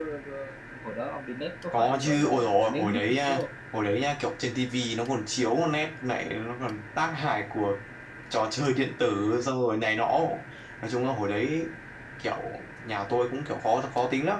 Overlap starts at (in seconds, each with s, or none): 1.7 s